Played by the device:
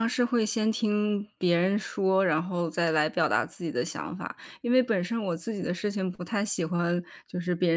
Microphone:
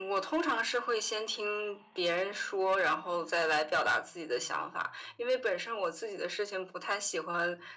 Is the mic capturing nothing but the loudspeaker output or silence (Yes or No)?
Yes